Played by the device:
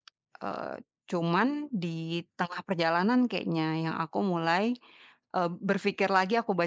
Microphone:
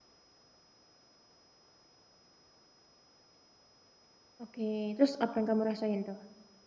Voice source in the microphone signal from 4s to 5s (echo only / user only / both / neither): user only